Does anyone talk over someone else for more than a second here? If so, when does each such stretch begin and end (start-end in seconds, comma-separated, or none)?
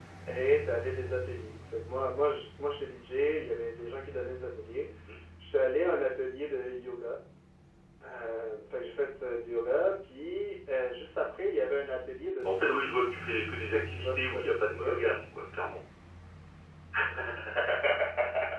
13.6-14.9